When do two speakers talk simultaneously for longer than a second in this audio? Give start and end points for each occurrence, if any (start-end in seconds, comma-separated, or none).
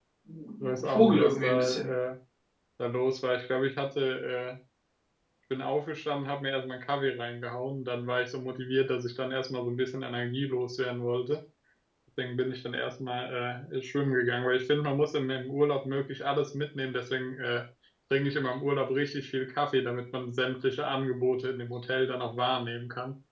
0.6-1.9